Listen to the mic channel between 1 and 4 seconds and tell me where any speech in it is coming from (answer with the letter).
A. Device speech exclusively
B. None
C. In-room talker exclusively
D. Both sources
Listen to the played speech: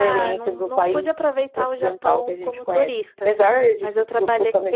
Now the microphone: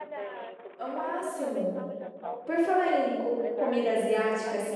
D